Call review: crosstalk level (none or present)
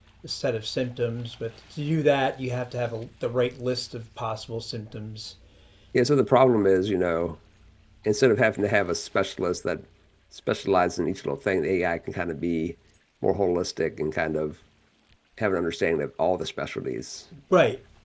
none